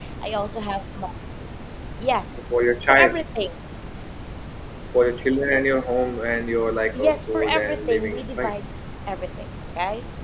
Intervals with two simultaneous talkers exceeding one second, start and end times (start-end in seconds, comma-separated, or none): 6.9-8.5